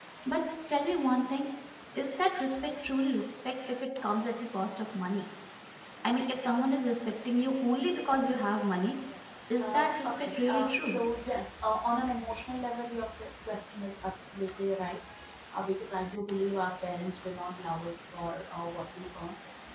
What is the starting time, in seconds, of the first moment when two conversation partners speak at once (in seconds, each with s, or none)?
9.6 s